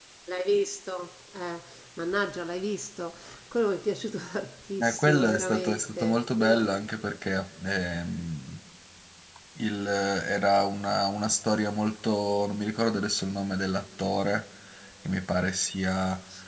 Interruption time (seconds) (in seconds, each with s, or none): 4.8 s